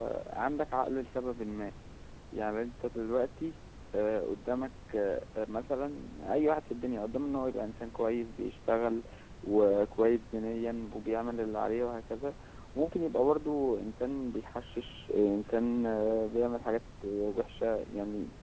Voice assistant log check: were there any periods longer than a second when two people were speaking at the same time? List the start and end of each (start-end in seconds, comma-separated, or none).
none